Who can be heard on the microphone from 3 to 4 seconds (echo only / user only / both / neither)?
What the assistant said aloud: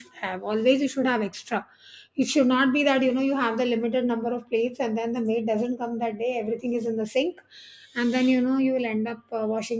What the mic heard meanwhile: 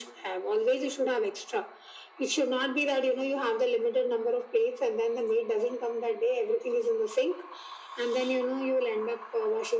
echo only